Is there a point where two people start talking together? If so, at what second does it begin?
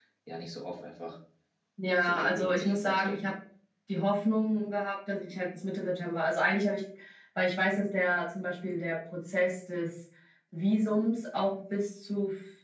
2.0 s

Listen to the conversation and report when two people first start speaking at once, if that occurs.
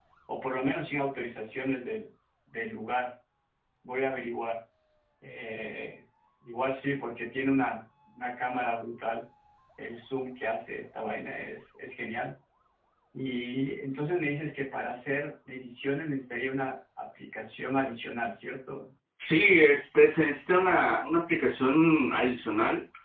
none

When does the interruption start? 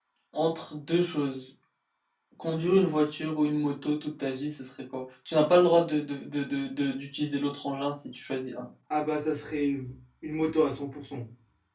none

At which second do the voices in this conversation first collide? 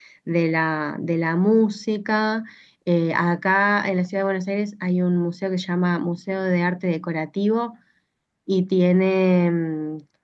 none

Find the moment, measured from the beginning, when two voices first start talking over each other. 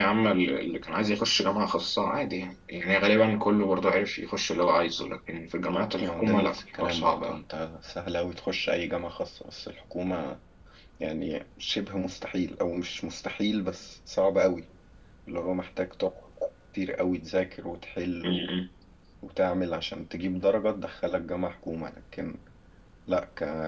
5.9 s

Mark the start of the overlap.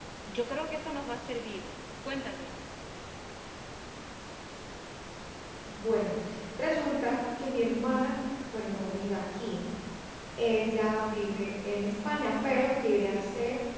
none

